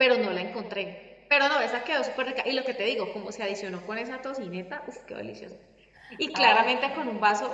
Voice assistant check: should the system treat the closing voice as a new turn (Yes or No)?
No